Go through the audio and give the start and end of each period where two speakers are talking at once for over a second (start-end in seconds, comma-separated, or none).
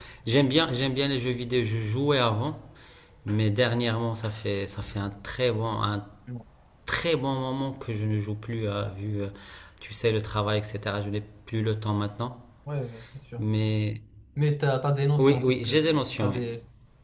15.2-16.4